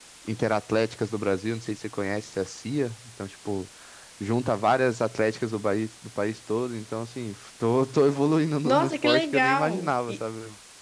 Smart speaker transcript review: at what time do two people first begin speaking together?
8.6 s

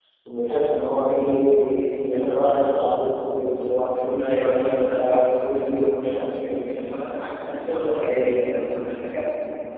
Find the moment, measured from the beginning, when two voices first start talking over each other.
4.2 s

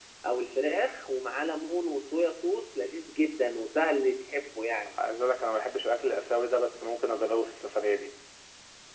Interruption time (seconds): none

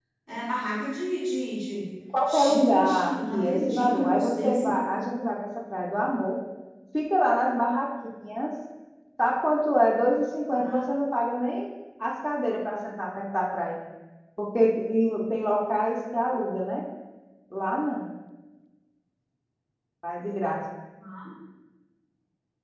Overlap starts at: 2.2 s

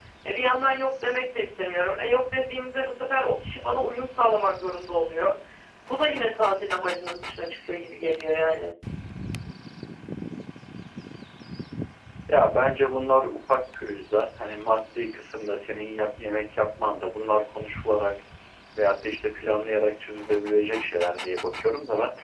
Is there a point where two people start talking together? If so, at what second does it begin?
none

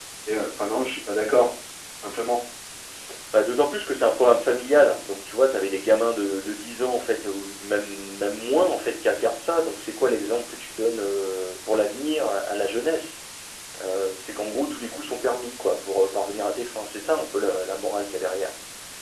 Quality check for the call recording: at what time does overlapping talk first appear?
none

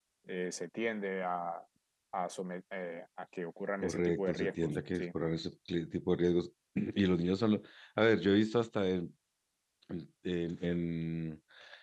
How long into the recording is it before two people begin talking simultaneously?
3.8 s

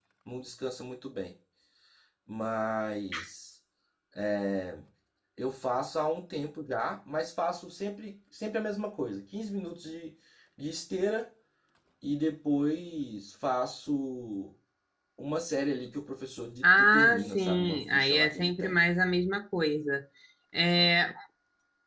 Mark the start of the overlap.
16.6 s

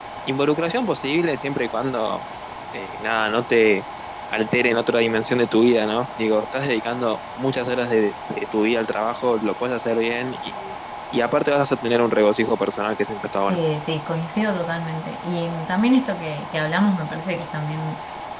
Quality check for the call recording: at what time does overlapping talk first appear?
none

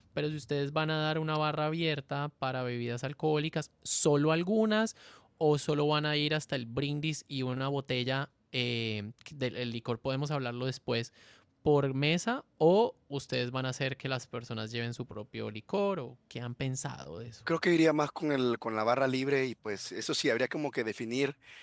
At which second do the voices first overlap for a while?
none

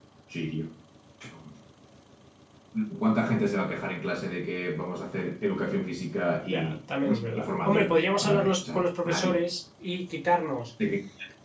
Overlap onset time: 6.4 s

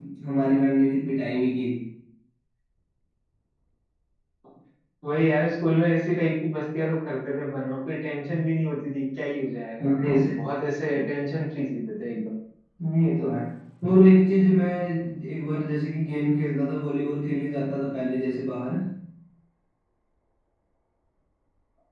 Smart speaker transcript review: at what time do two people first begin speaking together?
none

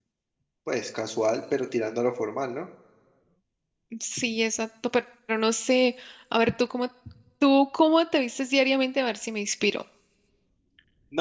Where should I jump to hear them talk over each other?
none

